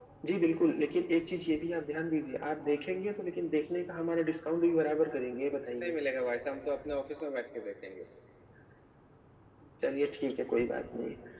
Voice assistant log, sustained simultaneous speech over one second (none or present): none